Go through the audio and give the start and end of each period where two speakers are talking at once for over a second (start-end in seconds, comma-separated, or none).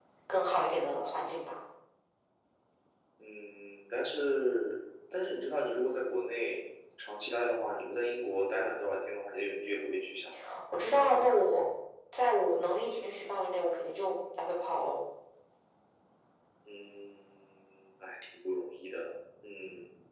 none